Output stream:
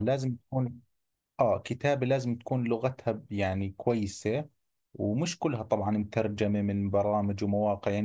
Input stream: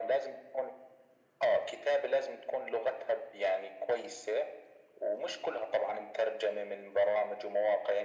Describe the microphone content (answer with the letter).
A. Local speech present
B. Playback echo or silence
B